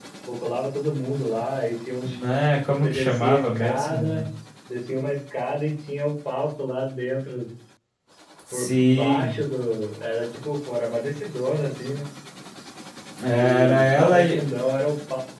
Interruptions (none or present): present